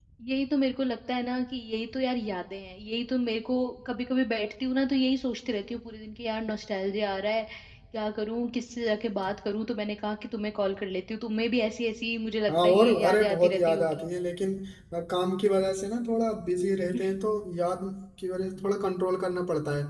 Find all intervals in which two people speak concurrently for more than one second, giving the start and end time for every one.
12.5-14.1

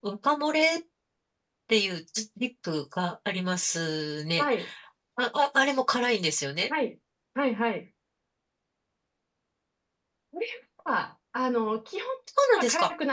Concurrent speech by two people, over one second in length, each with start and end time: none

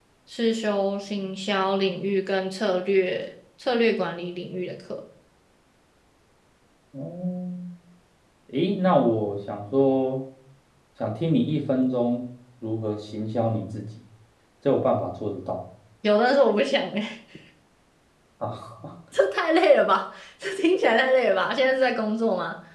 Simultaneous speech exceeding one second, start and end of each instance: none

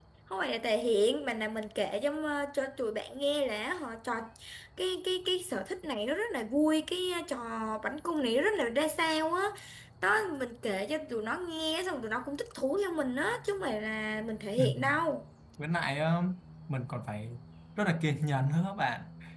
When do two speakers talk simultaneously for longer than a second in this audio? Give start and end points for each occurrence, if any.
none

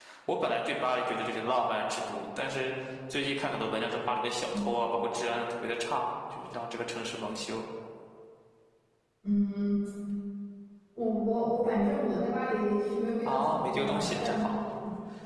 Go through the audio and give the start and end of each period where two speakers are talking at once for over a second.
13.2-14.5

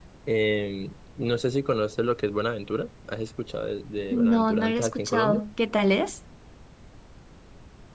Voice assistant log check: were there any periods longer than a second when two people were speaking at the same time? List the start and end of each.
4.1-5.4

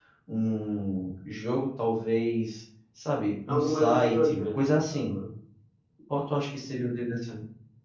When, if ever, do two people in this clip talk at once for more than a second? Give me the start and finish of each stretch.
3.5-5.2

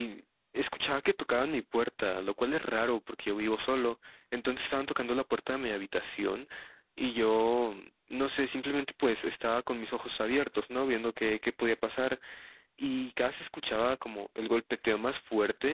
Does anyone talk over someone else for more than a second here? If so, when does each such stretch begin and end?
none

